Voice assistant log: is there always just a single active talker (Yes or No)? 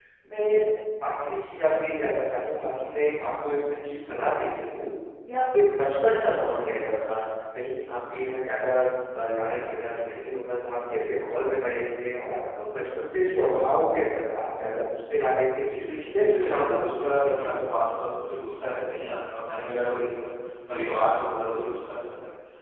No